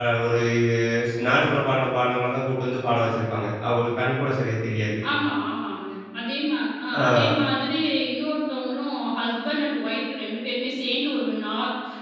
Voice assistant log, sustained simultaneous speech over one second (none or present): none